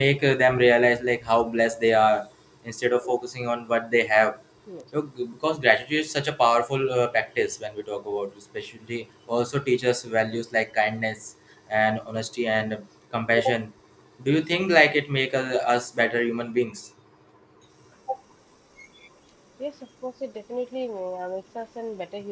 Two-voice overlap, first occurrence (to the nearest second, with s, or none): none